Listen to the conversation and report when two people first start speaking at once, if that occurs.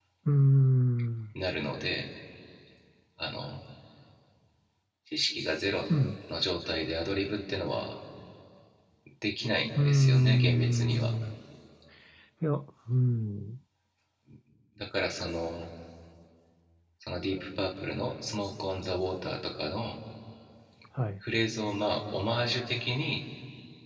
9.8 s

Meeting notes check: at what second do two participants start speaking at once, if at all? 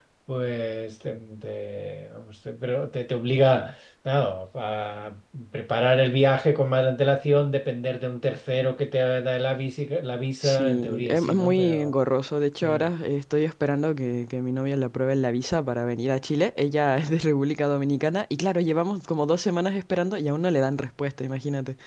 10.4 s

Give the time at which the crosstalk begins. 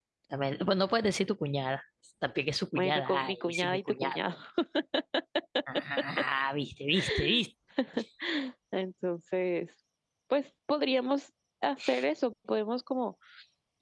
2.7 s

